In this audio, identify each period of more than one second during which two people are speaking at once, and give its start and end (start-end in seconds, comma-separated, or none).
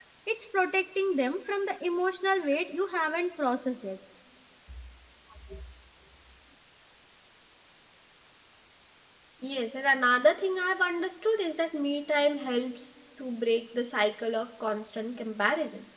none